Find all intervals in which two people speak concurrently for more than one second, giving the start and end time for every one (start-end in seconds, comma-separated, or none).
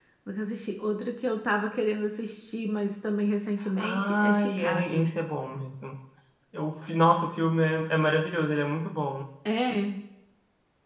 3.8-5.1